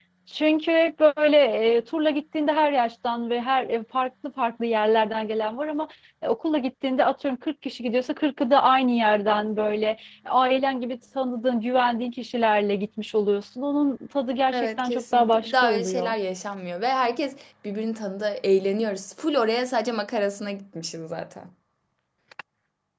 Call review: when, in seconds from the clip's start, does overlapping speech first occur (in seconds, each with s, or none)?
14.5 s